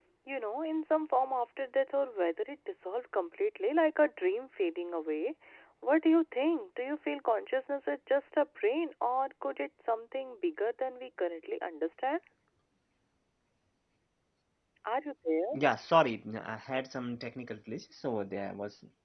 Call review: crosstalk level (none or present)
none